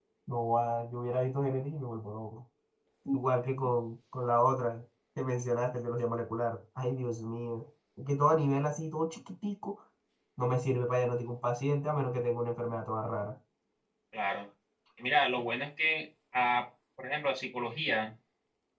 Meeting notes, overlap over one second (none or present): none